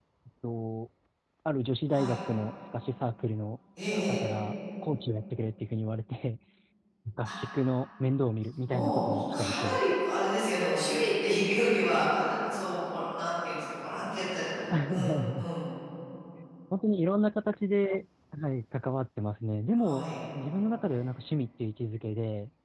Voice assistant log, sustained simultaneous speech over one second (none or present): present